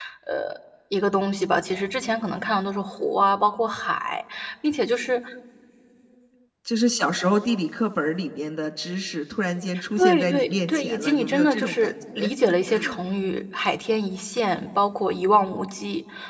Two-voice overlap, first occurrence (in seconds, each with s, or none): 10.0 s